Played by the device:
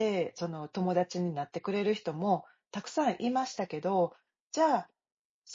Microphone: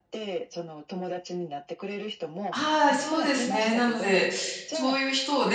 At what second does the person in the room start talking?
3 s

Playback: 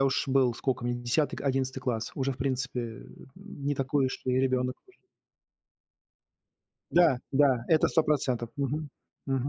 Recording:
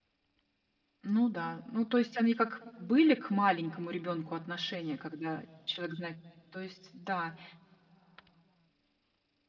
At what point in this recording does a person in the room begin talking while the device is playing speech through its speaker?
1 s

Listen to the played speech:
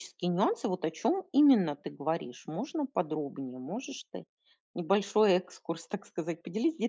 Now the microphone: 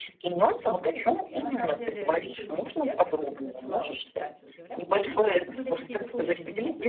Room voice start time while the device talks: 0 s

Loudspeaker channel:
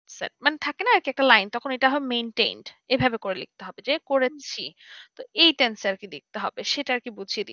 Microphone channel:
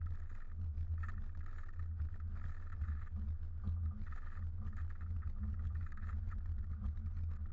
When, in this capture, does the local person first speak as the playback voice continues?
none

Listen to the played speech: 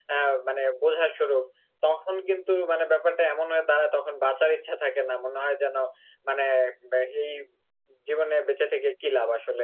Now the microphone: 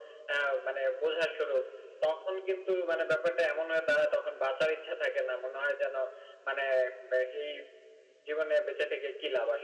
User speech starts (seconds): none

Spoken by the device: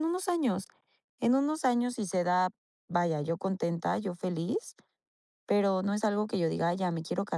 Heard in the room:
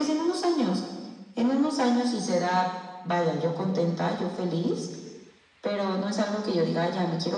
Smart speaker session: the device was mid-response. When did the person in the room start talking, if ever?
none

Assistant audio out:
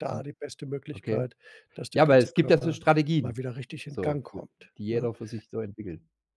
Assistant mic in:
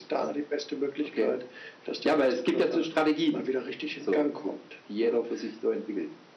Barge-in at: none

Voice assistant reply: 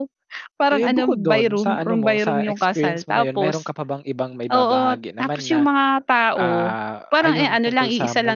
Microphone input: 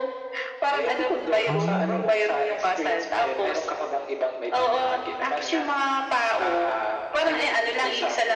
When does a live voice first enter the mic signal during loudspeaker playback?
1 s

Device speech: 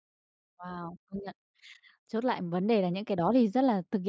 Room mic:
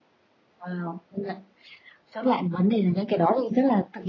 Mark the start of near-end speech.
none

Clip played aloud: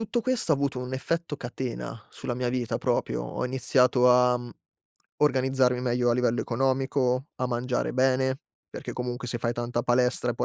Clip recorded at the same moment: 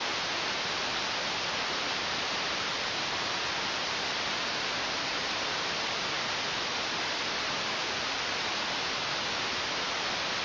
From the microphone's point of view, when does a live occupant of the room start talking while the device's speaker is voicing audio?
none

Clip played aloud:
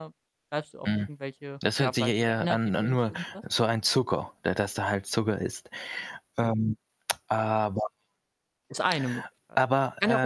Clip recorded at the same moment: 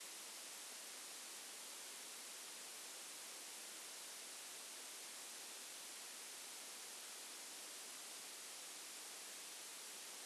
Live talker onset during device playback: none

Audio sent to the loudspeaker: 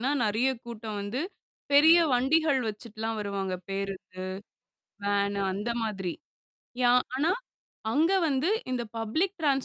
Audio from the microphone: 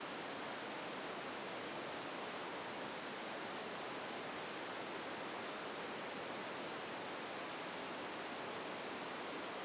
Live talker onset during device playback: none

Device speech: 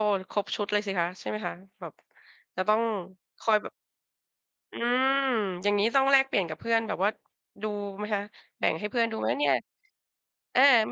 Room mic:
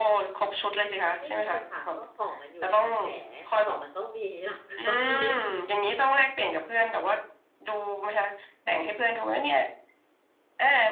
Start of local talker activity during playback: 1 s

